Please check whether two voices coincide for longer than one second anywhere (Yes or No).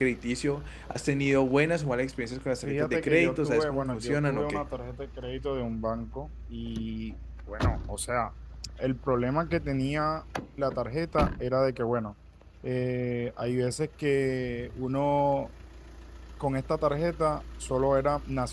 Yes